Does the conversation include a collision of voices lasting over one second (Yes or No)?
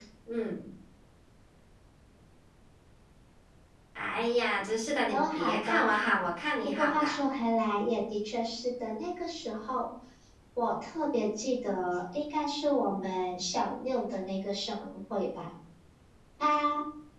Yes